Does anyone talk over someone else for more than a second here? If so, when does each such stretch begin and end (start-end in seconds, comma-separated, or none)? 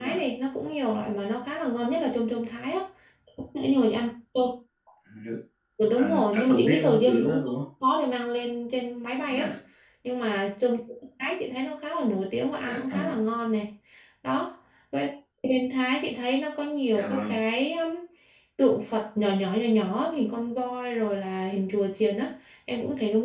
6.0-7.4